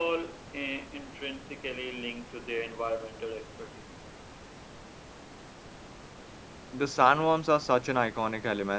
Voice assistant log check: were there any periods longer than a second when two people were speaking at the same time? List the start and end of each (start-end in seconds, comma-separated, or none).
none